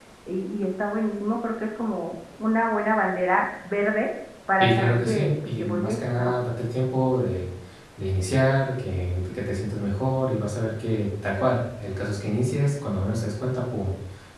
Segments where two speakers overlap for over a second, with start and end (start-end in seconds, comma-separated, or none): 4.6-6.3